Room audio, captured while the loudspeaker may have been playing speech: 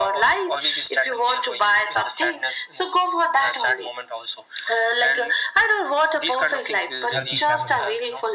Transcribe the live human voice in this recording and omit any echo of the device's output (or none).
healthy family